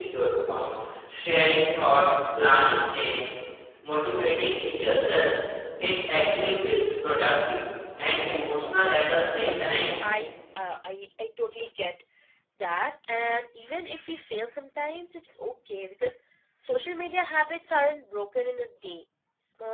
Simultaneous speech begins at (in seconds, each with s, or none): 8.4 s